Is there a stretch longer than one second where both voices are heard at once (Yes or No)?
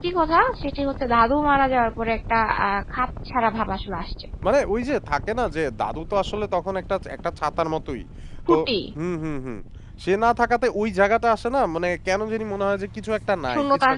No